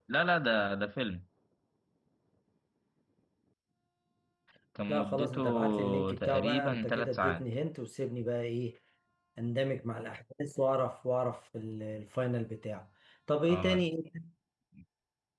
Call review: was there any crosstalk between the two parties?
Yes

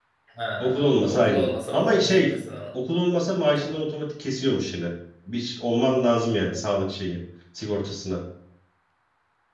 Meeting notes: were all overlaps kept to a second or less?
No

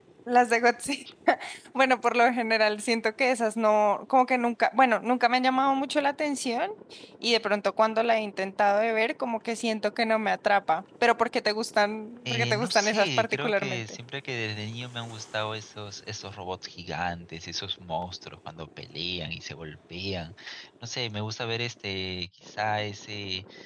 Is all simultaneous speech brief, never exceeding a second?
No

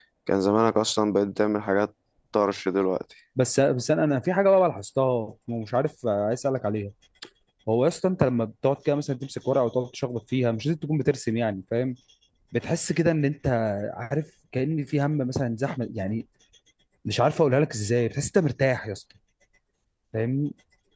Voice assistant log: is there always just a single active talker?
Yes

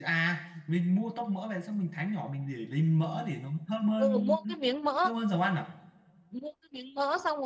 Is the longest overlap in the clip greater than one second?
No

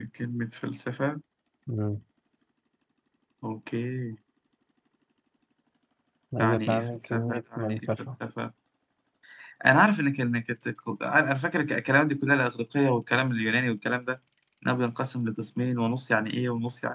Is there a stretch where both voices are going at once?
Yes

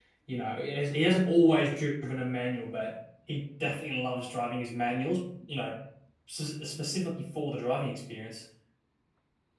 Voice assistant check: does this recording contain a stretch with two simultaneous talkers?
No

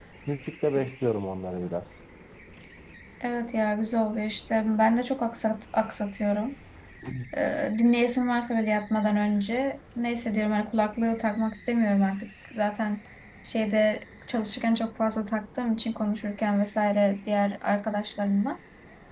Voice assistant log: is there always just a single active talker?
Yes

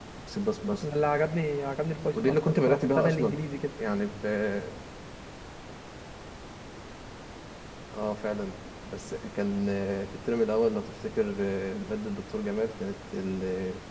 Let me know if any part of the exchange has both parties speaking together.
Yes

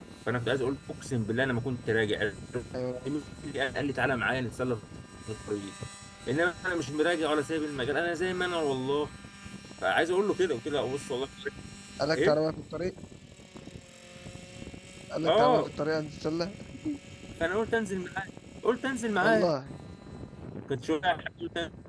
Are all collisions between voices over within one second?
Yes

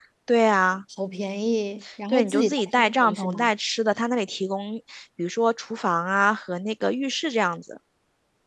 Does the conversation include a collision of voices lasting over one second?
Yes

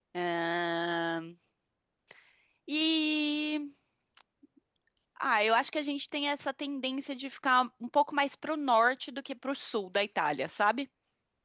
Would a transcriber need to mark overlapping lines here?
No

